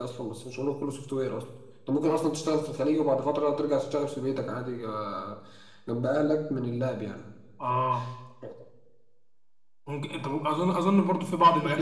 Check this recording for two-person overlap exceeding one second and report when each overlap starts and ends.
none

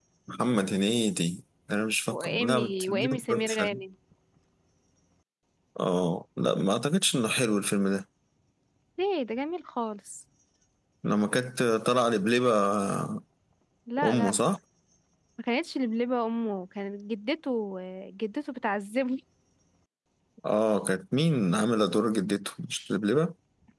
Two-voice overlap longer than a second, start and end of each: 2.1-3.8

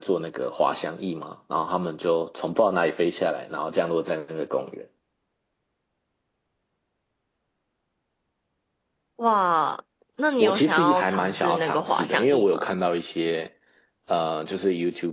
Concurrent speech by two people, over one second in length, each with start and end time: 10.4-12.8

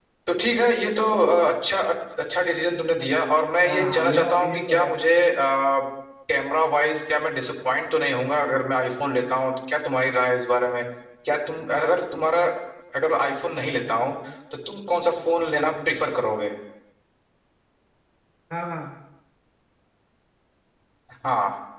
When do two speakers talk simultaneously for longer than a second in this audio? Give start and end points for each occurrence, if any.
3.7-4.9

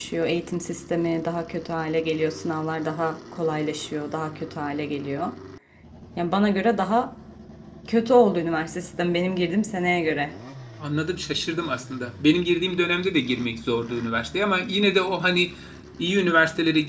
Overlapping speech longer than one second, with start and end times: none

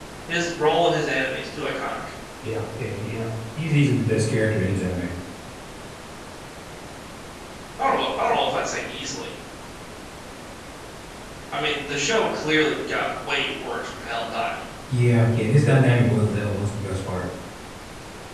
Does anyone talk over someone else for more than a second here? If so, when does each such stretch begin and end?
none

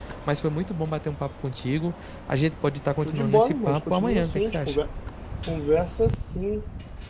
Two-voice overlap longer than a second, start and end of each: 3.0-4.8

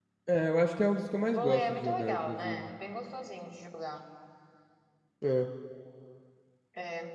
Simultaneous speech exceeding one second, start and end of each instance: 1.3-2.7

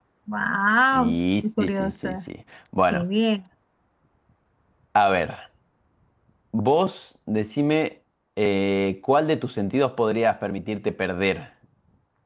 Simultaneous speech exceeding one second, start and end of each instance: 0.9-2.2

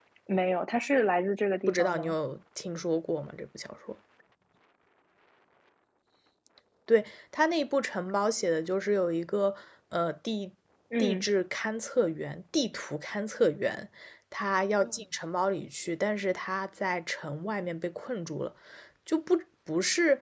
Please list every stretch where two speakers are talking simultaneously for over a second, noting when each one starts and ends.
none

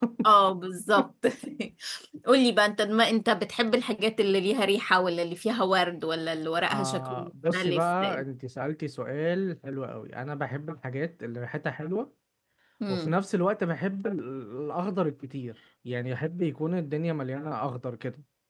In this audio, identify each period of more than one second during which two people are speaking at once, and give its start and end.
6.6-8.2

